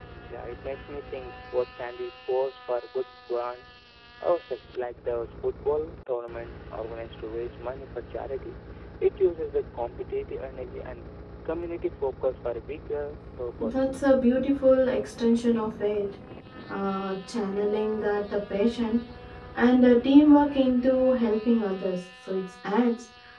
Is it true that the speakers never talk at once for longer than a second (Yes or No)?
Yes